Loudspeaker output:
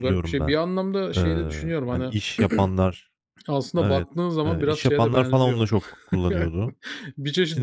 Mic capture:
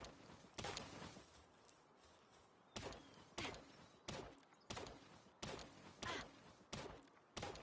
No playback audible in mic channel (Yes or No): Yes